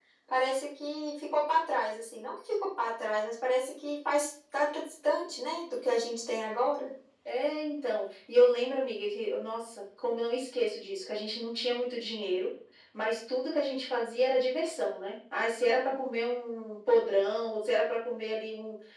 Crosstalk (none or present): none